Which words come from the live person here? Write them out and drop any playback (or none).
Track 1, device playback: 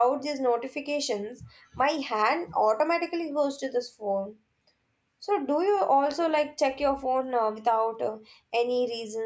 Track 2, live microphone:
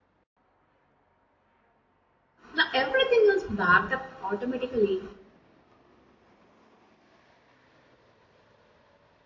Now everything is backed up automatically.